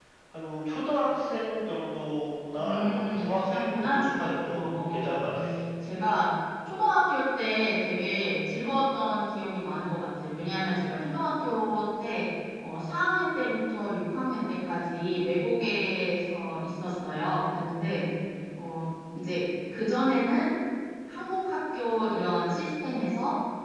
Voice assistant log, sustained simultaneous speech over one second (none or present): present